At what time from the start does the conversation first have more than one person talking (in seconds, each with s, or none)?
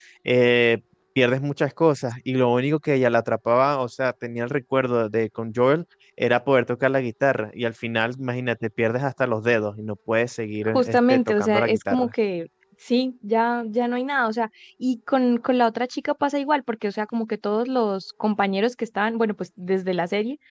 10.6 s